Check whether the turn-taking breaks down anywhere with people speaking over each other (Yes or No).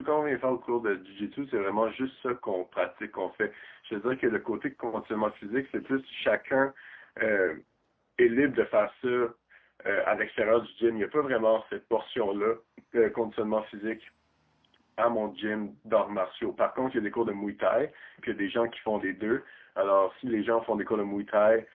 No